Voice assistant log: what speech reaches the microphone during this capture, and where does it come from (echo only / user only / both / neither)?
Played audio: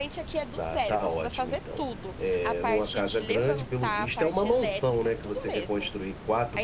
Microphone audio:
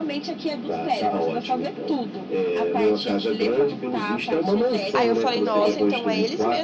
both